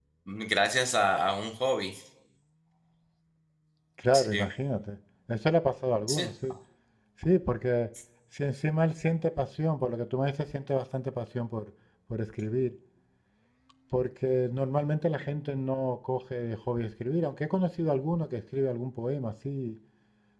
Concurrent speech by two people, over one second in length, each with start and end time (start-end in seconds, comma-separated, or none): none